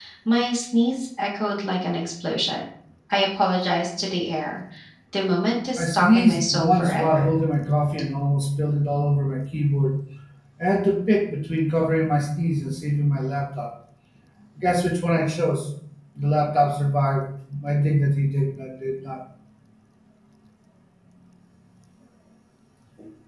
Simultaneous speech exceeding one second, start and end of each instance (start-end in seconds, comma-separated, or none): 5.8-7.4